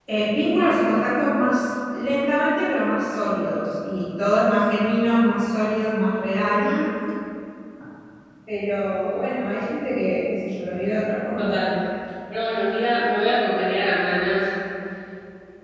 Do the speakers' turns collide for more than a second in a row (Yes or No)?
No